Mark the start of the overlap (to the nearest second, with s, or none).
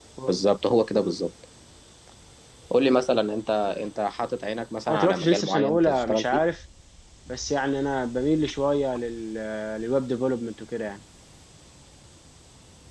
5 s